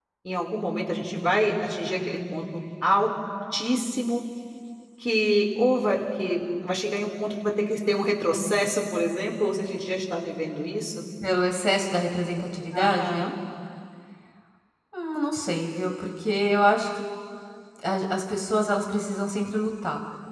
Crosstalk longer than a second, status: none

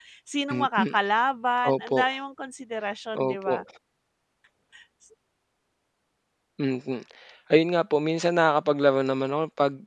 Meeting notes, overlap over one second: none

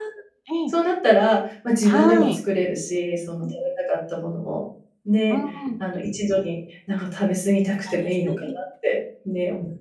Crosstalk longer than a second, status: none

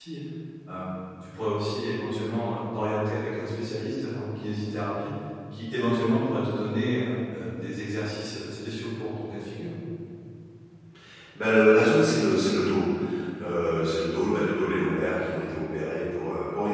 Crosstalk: none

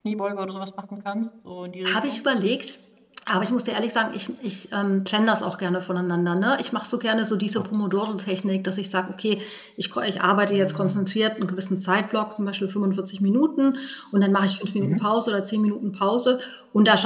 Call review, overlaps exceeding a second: none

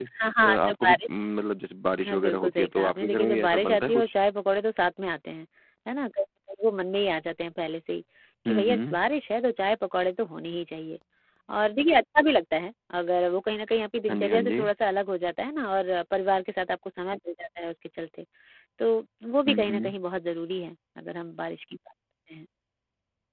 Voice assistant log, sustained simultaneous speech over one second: present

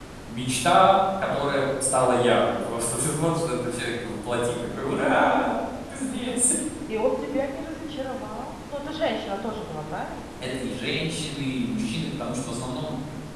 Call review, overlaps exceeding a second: none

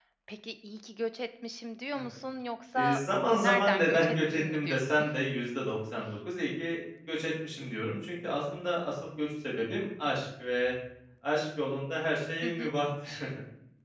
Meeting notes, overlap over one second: present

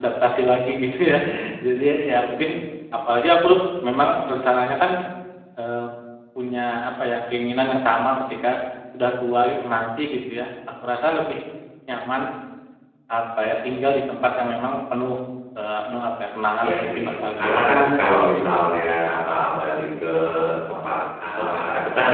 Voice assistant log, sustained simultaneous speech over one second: present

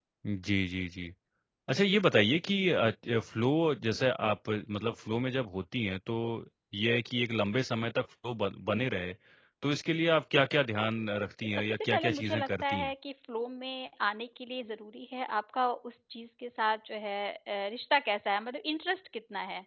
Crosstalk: present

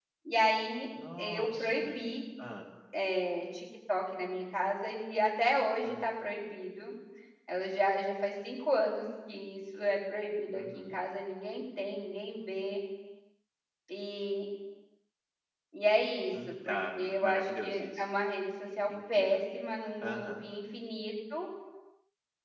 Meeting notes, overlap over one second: present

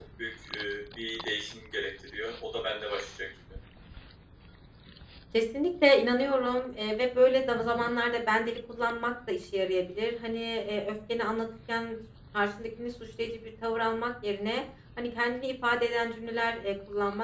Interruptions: none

